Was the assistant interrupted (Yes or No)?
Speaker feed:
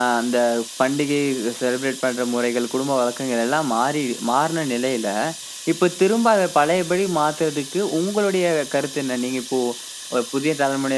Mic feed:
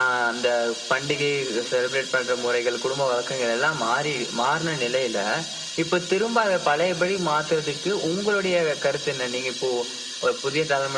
No